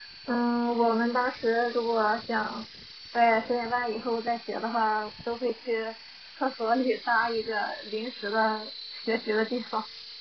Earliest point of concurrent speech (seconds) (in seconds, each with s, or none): none